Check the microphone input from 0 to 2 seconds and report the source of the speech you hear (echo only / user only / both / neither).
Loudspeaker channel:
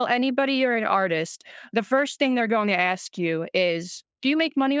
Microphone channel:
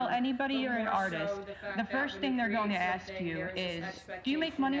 both